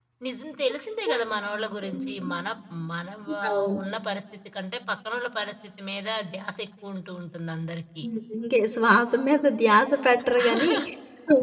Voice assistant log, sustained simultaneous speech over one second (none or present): none